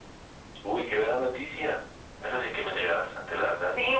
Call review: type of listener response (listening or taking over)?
taking over